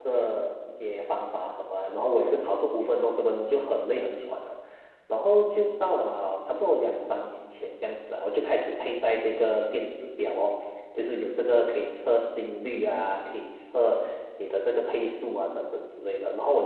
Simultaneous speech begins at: none

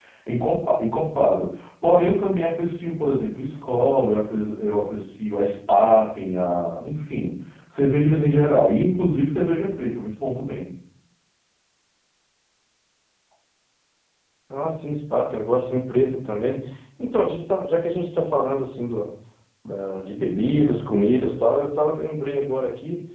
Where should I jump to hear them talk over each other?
none

